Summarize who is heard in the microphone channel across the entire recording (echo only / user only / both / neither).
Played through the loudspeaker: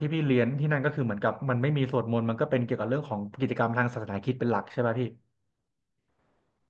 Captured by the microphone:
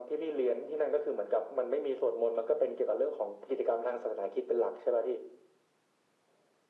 echo only